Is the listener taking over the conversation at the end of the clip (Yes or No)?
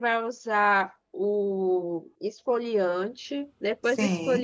No